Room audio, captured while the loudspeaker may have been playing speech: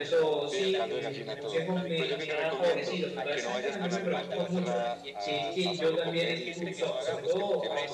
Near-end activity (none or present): present